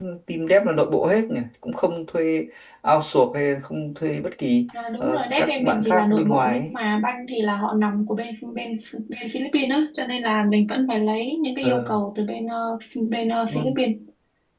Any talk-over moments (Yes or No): Yes